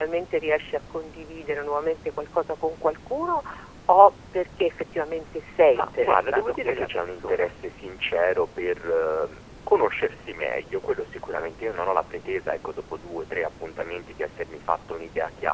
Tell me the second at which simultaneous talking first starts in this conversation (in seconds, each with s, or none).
5.7 s